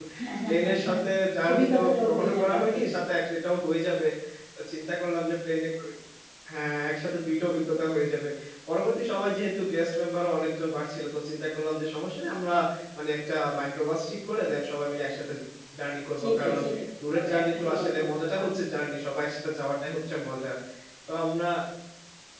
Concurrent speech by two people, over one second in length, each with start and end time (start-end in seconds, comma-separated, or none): 1.5-3.0, 17.1-18.4